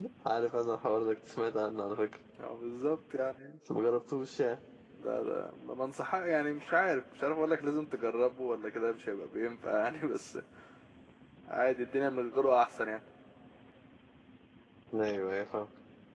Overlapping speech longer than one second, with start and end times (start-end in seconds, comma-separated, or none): none